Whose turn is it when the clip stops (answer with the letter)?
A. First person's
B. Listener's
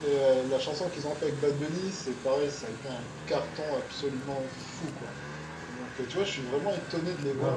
A